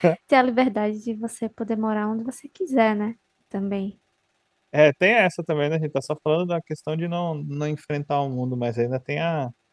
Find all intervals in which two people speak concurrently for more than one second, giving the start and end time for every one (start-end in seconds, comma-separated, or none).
none